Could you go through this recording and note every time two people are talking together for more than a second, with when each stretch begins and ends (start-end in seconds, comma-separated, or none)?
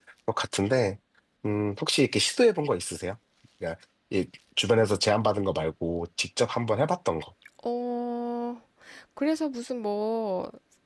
none